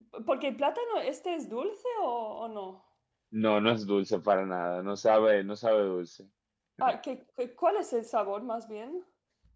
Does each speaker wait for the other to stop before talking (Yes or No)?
Yes